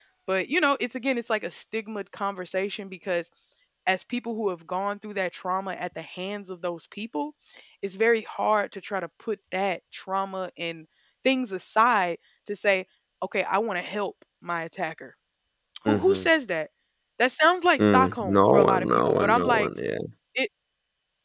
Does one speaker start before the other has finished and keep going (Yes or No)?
Yes